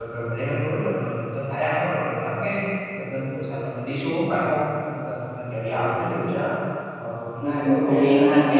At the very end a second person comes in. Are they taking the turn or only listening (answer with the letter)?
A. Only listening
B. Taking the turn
B